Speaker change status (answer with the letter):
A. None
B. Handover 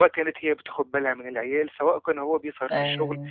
A